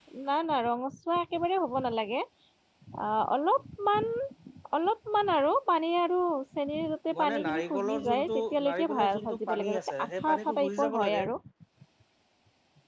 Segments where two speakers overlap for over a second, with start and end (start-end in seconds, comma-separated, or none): 7.2-11.2